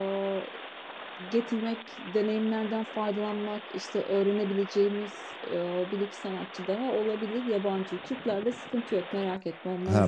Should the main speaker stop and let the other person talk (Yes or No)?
Yes